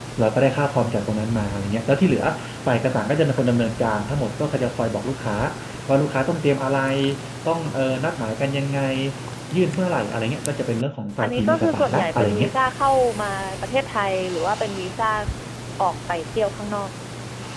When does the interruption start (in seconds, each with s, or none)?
11.2 s